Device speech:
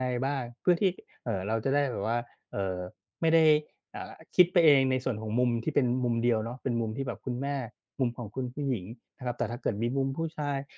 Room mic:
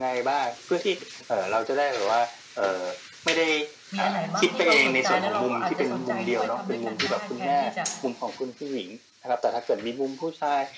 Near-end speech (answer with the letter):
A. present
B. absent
A